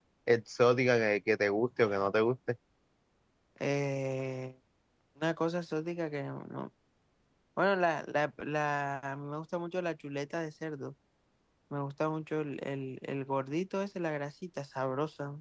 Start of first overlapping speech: none

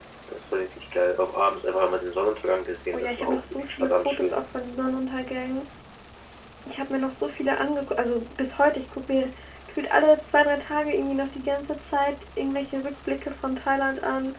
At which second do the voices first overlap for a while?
3 s

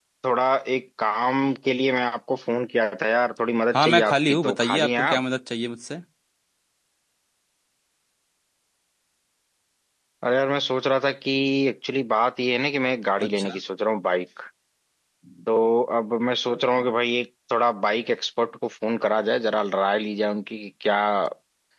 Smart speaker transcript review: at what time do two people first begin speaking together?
4 s

